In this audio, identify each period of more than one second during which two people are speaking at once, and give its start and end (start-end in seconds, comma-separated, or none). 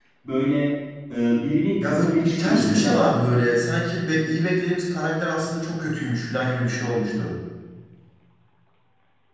1.8-3.1